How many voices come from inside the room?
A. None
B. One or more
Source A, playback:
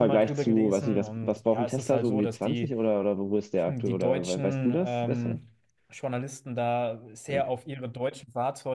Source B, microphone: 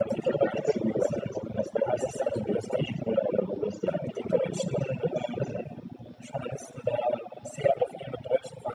A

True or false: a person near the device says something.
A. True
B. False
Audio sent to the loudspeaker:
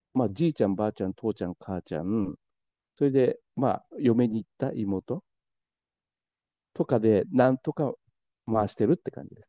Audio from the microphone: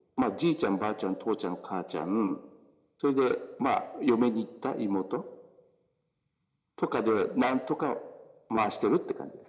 B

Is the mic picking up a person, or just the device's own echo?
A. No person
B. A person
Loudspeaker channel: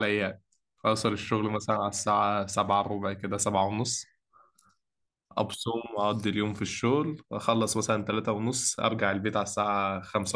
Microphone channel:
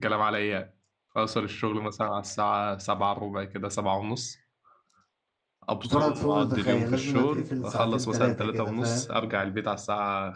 B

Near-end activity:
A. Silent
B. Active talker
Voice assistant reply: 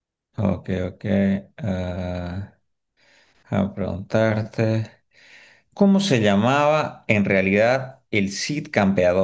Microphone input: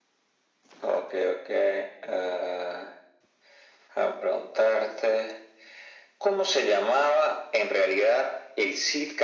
A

